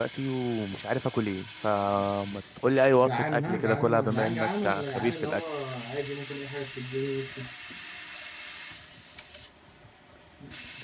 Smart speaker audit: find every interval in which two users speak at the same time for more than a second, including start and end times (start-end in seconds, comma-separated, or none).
3.0-5.4